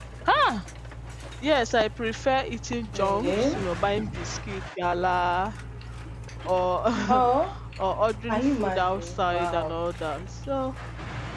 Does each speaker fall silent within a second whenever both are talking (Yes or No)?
No